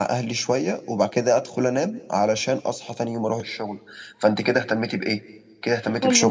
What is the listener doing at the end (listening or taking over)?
listening